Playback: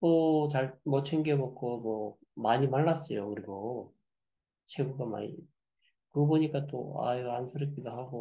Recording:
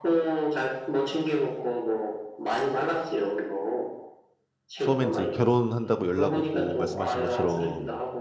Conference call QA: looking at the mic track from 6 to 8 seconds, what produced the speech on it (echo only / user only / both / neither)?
both